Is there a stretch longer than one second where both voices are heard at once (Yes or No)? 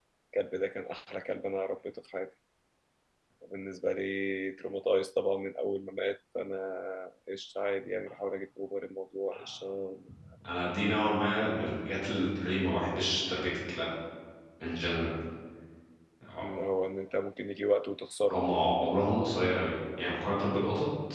No